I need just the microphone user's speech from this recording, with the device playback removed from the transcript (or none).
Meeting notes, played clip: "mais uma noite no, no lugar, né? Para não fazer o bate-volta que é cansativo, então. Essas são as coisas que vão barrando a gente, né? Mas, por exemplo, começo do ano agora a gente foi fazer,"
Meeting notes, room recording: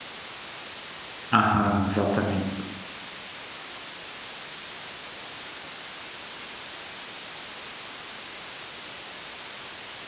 Aham, exatamente.